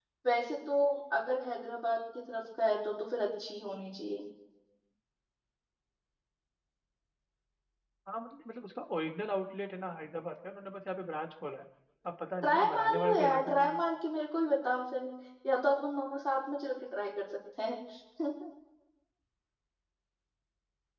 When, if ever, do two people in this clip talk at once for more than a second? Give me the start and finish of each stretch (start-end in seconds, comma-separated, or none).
12.4-13.8